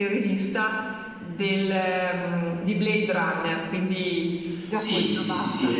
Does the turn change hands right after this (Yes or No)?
Yes